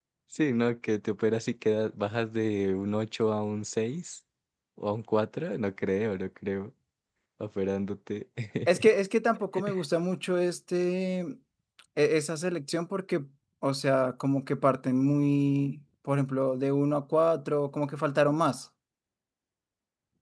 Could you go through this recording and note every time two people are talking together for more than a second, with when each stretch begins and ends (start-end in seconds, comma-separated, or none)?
none